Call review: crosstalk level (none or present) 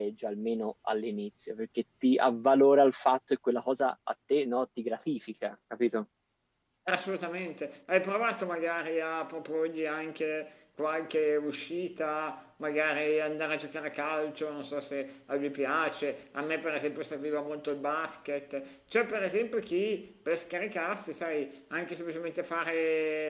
none